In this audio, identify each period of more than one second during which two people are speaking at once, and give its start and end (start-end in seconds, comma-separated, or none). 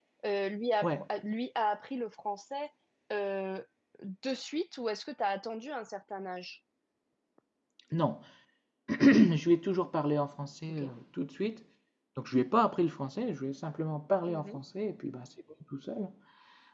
none